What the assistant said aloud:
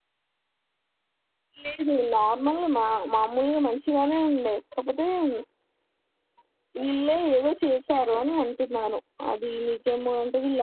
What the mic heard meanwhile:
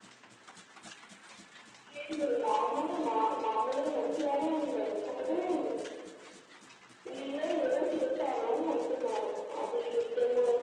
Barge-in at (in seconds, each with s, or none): none